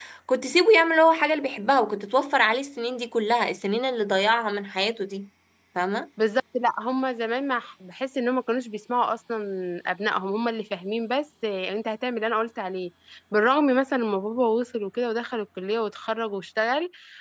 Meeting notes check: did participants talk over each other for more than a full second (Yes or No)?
No